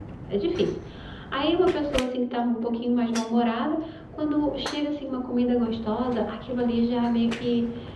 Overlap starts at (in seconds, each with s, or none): none